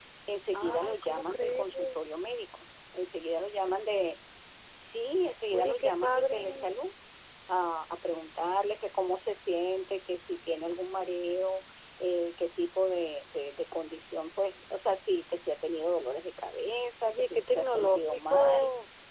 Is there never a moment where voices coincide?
No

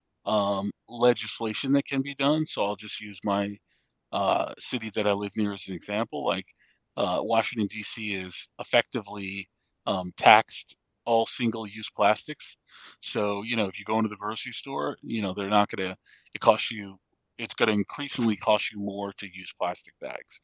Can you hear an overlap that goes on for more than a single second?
No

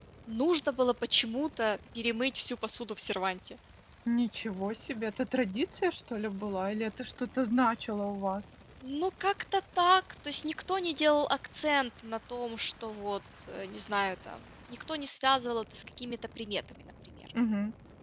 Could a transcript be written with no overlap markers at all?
Yes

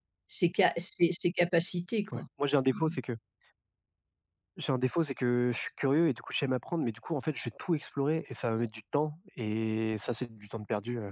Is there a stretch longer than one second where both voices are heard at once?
No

